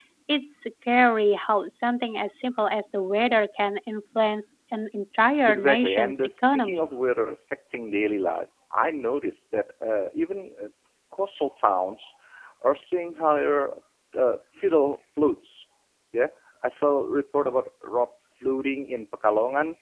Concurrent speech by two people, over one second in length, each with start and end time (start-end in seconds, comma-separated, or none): 5.5-6.8